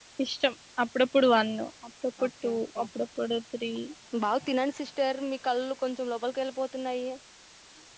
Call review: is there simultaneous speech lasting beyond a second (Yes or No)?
No